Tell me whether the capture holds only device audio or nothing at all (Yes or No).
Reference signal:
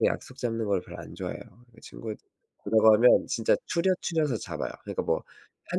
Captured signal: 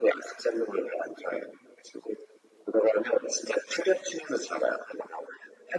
Yes